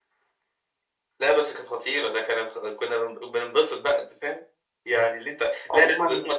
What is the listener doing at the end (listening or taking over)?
listening